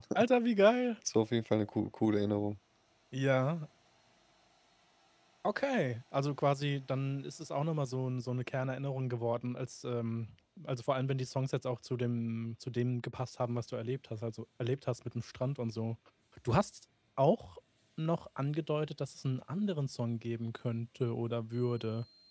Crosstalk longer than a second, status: none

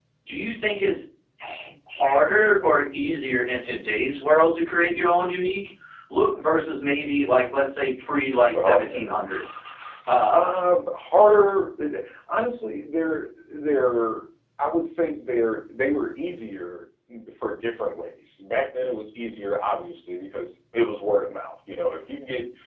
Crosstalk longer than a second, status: none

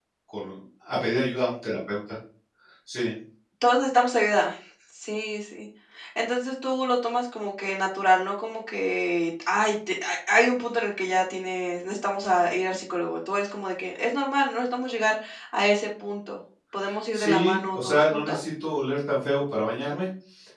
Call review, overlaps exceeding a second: present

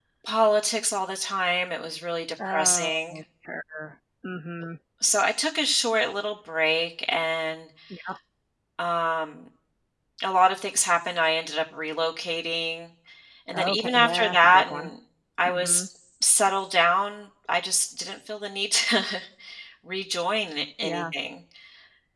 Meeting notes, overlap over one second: present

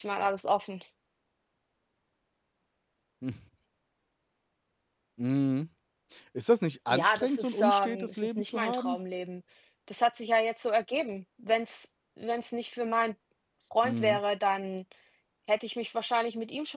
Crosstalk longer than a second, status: present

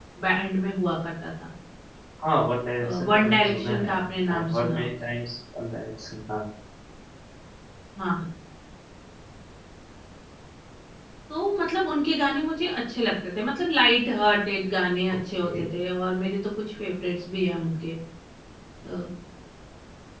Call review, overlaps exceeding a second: present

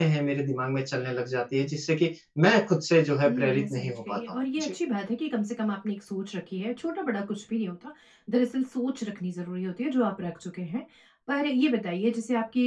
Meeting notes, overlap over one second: present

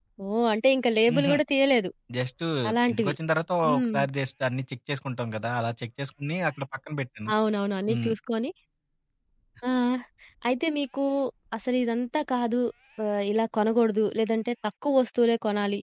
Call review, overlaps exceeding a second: none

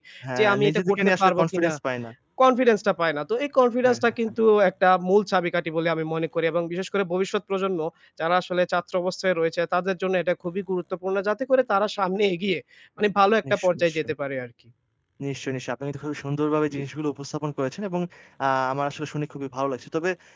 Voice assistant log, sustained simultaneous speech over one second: present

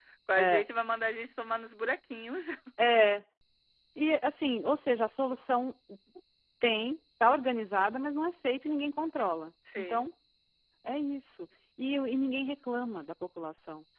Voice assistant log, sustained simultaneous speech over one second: none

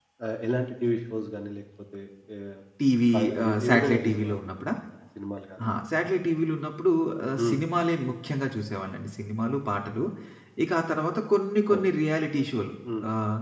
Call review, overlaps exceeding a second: present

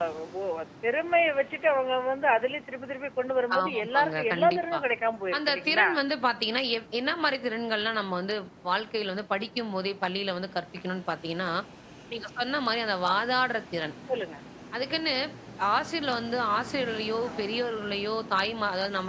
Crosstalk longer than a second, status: present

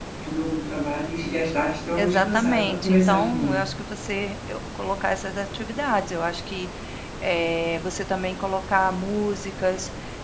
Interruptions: present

